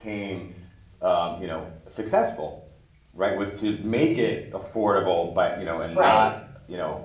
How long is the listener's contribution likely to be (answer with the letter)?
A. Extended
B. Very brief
B